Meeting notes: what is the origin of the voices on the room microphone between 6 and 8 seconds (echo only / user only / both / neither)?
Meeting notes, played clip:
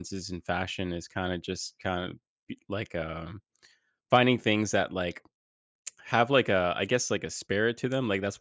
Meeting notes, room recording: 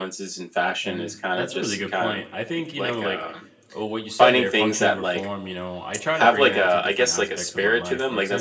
both